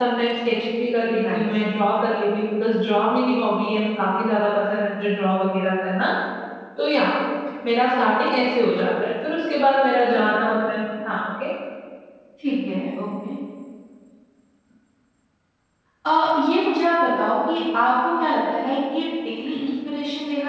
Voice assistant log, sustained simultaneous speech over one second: none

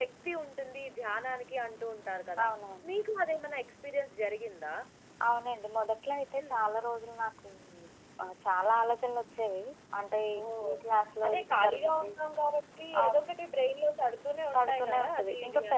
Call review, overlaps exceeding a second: present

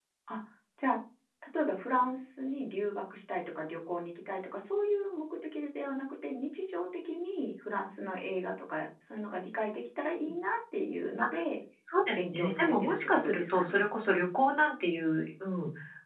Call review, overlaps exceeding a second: present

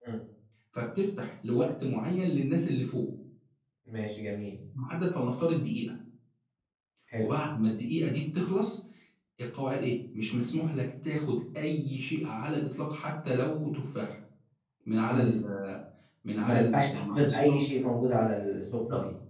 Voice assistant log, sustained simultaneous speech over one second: present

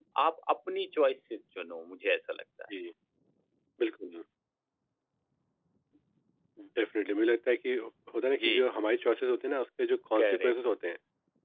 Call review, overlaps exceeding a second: none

